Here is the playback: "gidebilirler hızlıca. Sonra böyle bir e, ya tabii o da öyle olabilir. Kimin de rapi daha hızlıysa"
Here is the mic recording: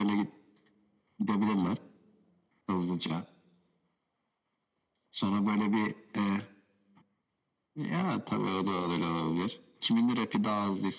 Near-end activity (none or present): none